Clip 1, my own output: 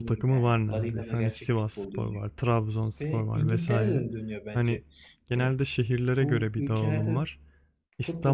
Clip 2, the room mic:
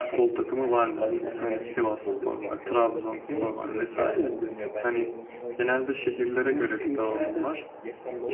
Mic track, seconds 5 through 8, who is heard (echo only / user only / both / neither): both